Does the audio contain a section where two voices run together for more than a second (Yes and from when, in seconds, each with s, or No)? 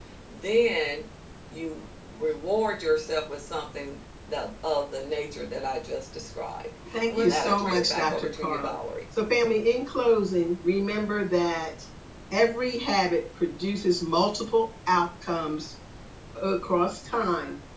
Yes, from 6.8 s